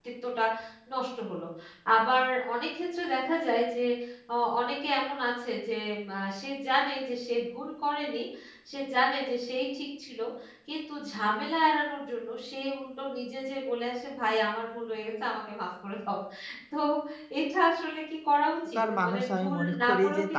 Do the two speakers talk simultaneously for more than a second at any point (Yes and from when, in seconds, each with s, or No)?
Yes, from 18.8 s